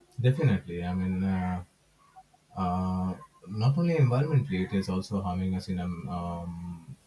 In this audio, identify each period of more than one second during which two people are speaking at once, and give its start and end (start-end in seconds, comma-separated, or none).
none